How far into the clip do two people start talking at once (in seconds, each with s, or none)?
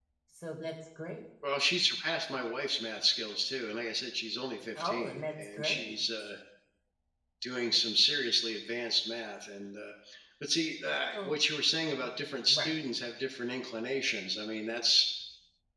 4.8 s